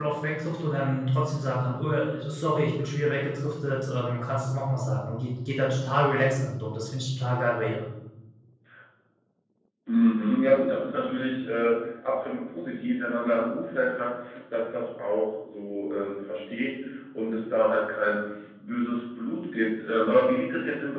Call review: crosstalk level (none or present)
none